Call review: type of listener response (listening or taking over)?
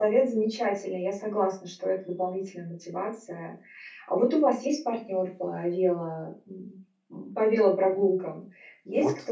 taking over